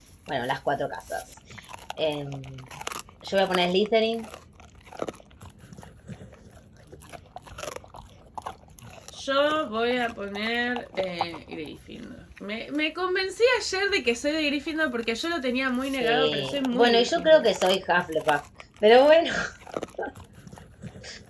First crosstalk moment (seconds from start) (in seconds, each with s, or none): 16.0 s